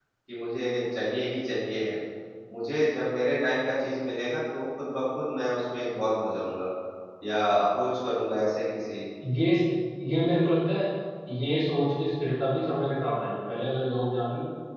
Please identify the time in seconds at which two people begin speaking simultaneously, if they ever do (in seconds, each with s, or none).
none